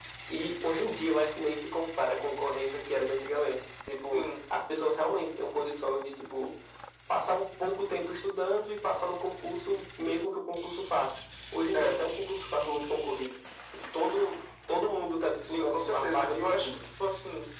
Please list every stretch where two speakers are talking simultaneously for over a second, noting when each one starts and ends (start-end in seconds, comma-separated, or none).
15.5-16.8